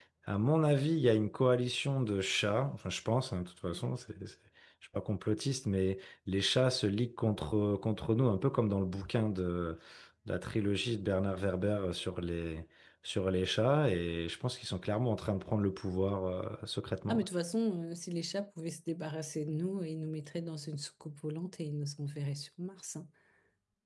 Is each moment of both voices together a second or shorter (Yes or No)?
Yes